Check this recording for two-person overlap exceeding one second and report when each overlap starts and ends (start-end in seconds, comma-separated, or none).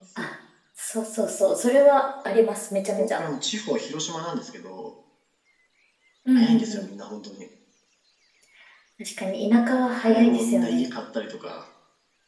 9.7-10.9